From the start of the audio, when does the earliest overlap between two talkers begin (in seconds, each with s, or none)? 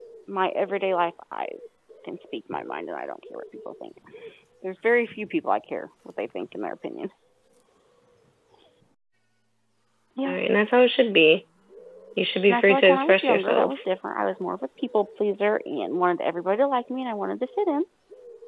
12.5 s